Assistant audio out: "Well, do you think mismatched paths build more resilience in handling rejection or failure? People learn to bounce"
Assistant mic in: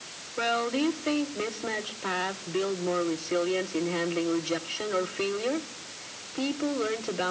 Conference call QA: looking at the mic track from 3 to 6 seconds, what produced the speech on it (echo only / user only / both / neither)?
echo only